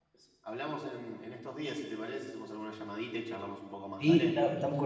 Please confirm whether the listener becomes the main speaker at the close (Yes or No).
Yes